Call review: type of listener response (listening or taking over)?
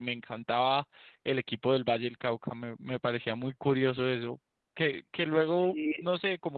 listening